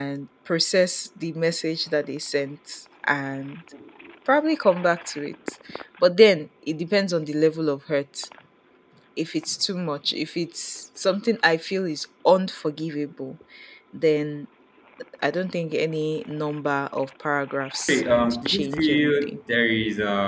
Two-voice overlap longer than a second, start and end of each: 17.9-19.4

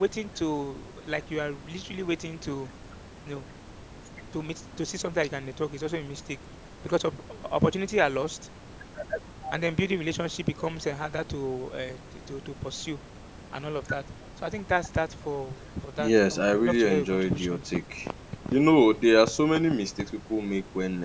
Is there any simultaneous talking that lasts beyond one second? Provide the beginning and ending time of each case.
16.0-17.7

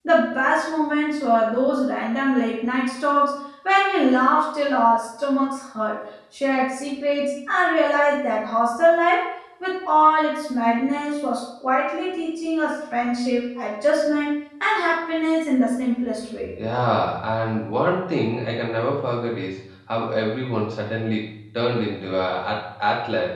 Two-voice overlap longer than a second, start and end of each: none

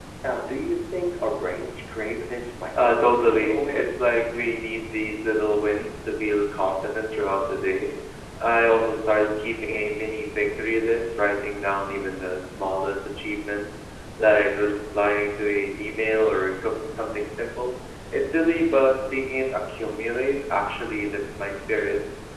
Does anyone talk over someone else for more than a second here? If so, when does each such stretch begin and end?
2.7-4.1

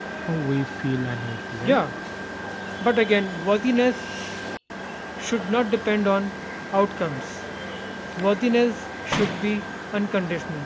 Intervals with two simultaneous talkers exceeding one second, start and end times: none

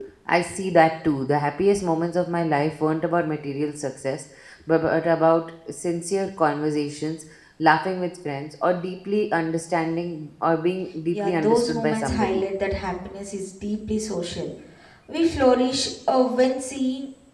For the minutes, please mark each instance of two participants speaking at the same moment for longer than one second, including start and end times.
11.1-12.4

